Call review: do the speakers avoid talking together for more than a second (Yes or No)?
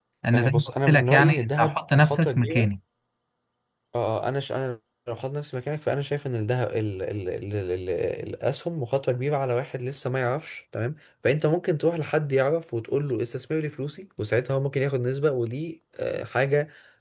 No